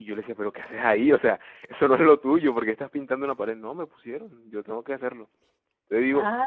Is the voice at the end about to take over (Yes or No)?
Yes